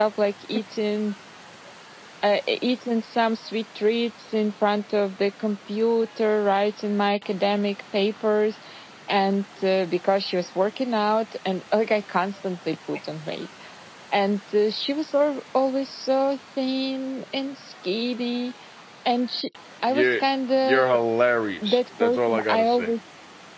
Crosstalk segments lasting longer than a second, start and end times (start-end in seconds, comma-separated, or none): 21.6-22.9